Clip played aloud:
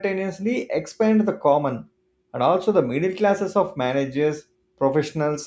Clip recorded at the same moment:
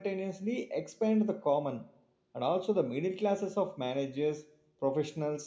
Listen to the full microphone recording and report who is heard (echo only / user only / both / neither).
echo only